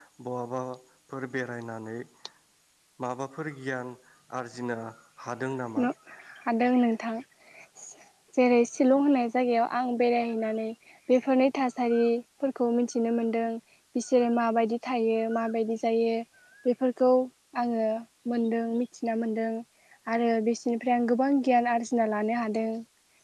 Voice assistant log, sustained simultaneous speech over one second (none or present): none